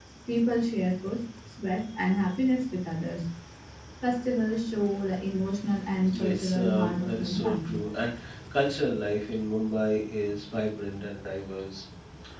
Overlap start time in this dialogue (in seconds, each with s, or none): 6.1 s